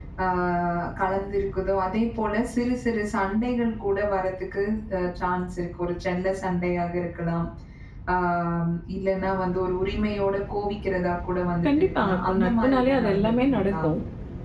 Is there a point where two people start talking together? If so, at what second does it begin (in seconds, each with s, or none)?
11.6 s